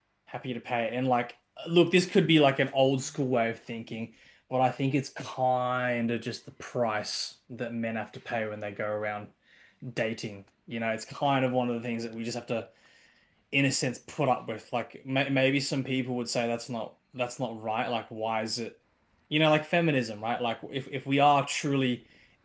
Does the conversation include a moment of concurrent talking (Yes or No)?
No